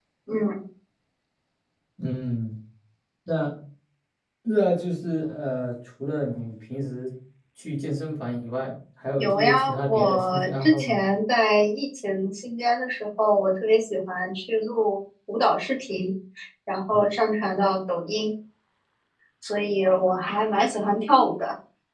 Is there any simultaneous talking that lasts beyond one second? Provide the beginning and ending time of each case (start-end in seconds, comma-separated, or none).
9.2-11.0